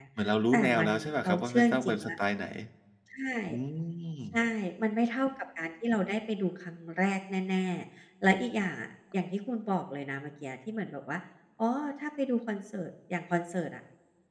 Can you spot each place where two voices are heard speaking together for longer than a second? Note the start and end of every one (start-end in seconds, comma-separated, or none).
0.5-2.1